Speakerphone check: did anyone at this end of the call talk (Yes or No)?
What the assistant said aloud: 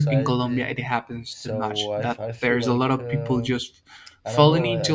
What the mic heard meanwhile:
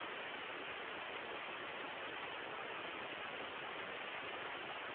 No